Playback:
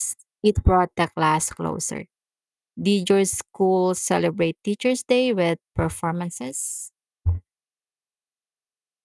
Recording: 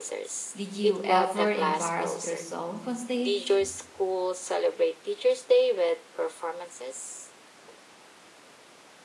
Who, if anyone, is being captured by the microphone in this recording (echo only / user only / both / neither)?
both